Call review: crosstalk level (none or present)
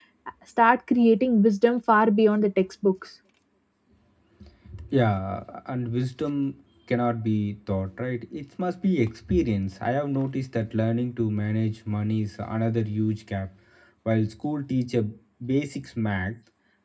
none